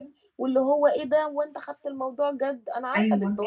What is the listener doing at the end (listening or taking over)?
taking over